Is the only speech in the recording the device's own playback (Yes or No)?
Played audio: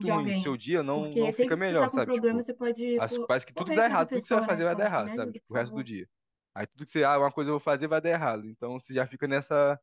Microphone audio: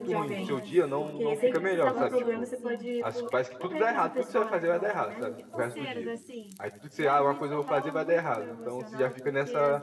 No